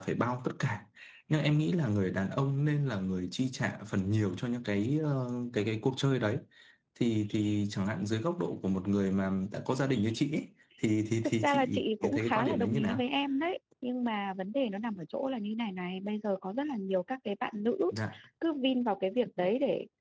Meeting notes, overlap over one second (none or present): present